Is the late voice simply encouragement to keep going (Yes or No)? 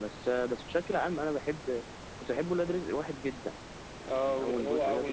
No